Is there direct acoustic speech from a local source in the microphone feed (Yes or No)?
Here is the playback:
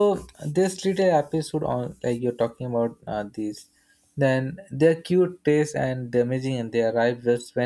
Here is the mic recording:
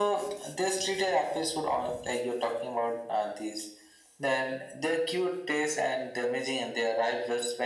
No